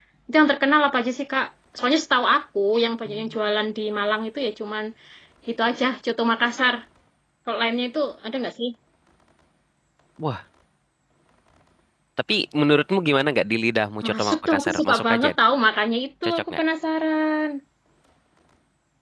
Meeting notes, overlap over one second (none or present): present